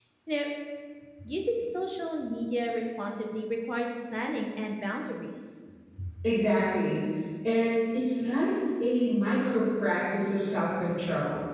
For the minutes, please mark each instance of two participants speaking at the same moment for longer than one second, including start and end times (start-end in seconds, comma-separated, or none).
none